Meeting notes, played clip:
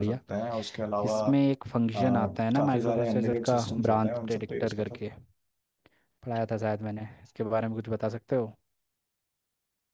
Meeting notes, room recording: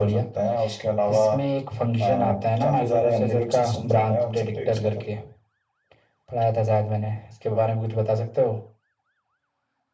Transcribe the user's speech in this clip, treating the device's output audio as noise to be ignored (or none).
none